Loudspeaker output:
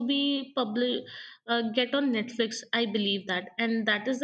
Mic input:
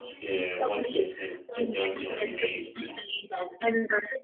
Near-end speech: present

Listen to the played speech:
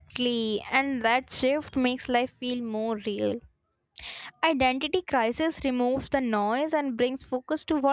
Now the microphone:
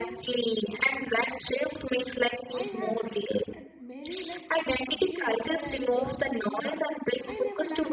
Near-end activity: present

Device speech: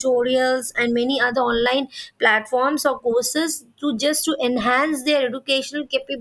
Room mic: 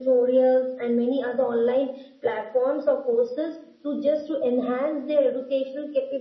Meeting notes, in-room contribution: none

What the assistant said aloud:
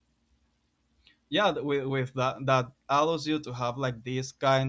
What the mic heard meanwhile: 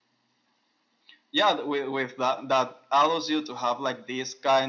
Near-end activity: none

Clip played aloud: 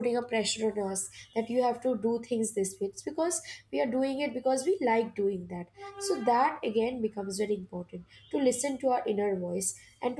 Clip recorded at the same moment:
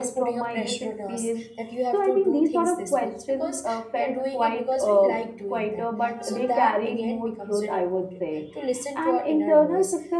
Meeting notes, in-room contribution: present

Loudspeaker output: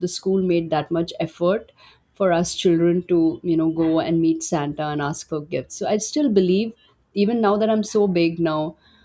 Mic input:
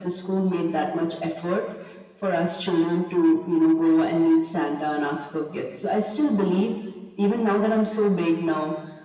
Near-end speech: none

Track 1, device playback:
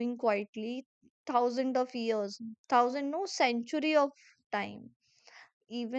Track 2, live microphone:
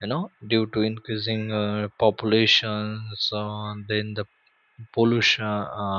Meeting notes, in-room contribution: present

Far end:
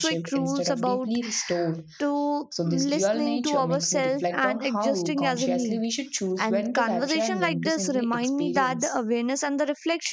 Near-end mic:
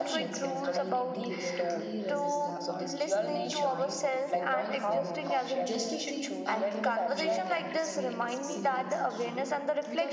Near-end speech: present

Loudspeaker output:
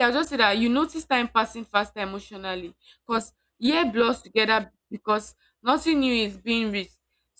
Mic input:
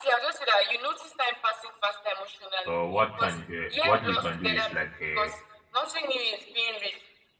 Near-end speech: present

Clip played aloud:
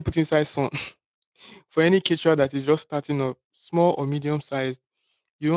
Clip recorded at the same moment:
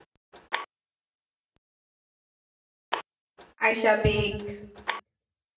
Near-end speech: present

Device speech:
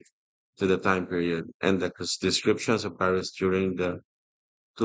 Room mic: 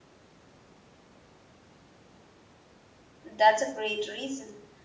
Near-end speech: present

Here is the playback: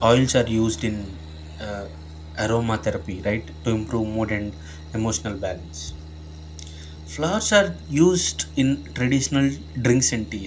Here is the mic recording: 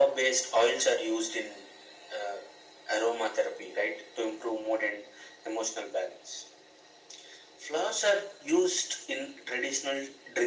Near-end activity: none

